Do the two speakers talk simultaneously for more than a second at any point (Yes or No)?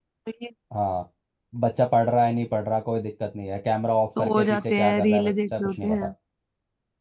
Yes